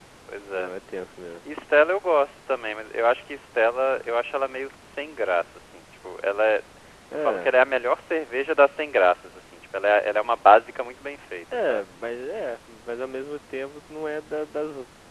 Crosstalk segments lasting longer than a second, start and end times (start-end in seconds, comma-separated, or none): none